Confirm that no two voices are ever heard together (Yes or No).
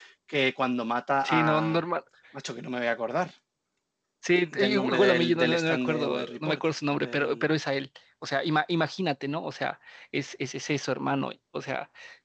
No